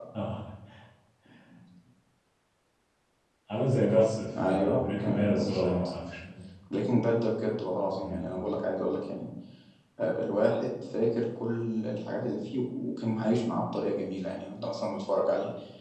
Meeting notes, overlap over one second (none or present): present